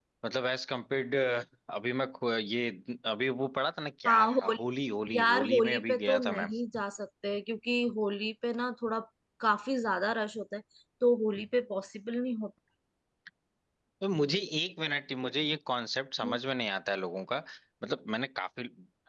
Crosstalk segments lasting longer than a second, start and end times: 5.2-6.5

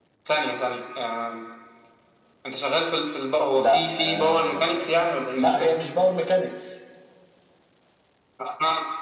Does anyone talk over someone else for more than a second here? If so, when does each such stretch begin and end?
3.6-4.9

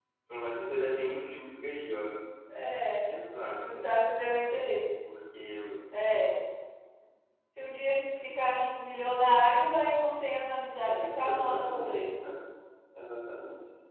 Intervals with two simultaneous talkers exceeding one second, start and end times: 10.8-12.1

